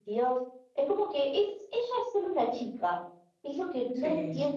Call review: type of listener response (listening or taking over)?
listening